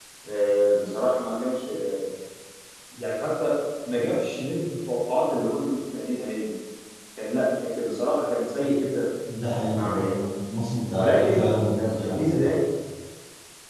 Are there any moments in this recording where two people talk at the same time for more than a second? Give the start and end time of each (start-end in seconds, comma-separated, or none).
11.0-12.5